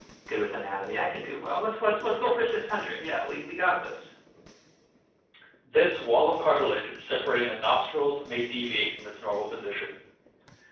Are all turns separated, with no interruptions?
Yes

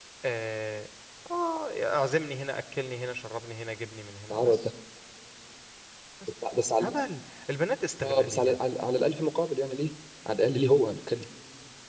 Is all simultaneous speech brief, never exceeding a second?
Yes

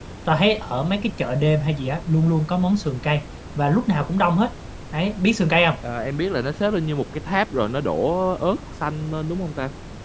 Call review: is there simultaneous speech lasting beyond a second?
No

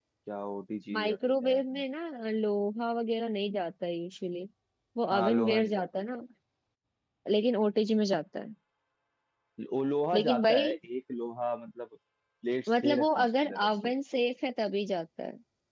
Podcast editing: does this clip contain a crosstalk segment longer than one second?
Yes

